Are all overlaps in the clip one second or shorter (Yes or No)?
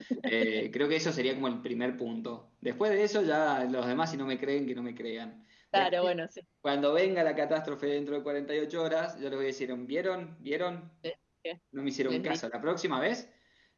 Yes